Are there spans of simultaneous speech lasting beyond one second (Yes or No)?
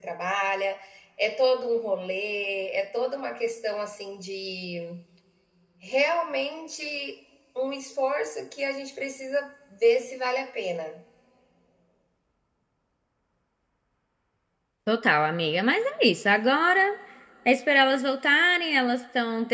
No